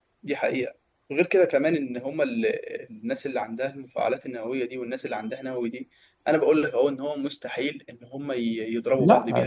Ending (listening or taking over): listening